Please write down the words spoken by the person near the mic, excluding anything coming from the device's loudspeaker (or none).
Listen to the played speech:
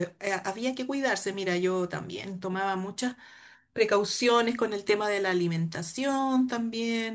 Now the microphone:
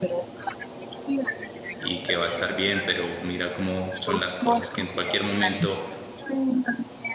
y que va a estar bien, pero mira cómo son las cosas que en cualquier momento